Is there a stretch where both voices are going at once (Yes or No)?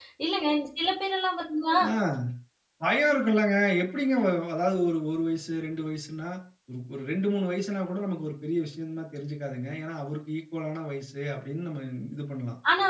No